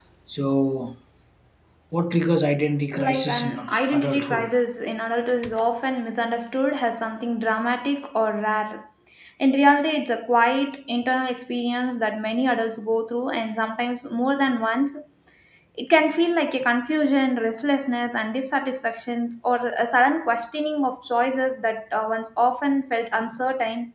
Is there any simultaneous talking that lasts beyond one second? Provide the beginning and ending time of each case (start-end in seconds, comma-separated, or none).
2.9-4.6